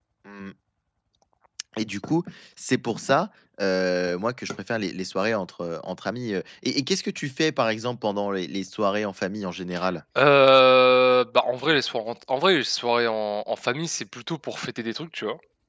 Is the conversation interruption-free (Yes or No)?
Yes